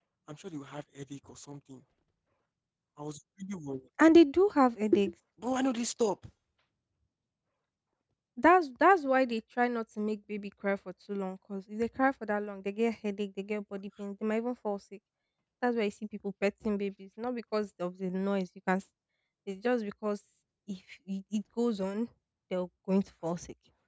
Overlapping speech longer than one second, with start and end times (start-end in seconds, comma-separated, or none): none